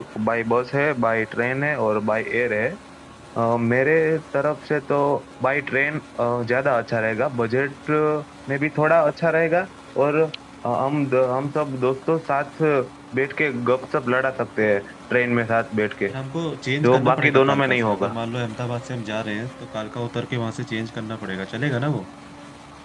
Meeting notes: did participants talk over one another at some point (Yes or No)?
Yes